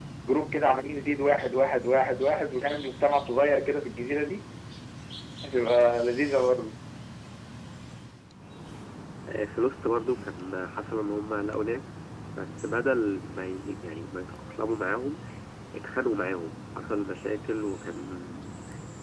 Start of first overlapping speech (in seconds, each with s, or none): none